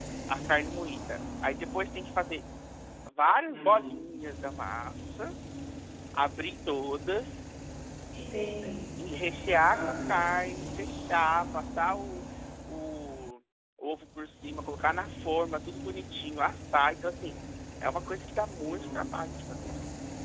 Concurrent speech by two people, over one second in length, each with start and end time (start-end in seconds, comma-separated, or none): none